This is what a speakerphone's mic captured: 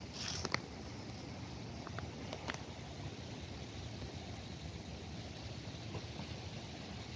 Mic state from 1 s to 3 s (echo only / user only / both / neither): neither